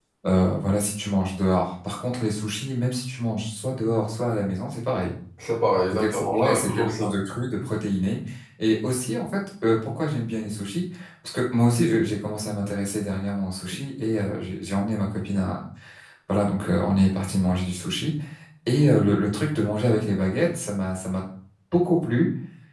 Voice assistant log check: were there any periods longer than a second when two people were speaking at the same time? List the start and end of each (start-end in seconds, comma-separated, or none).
5.9-7.1